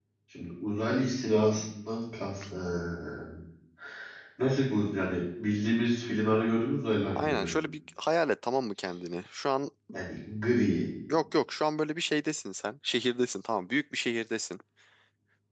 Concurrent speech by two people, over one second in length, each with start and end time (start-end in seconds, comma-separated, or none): none